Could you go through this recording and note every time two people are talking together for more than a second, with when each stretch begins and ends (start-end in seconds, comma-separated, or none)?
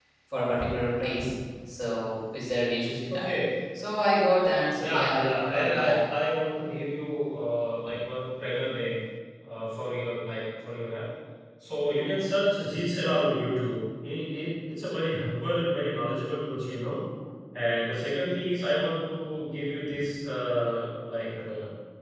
4.8-6.0